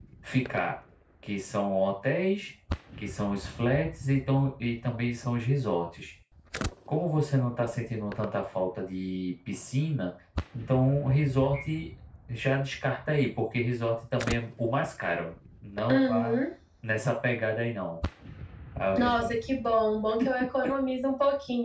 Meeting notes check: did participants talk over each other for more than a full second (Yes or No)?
No